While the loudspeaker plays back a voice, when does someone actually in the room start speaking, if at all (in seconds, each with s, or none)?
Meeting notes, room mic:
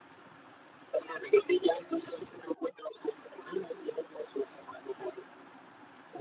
none